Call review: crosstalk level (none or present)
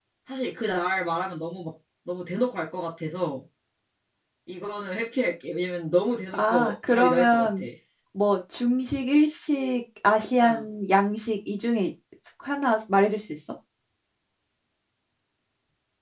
present